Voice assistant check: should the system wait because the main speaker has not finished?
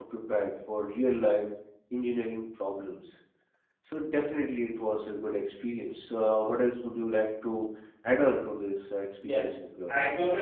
No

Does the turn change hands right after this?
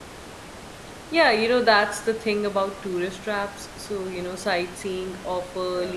No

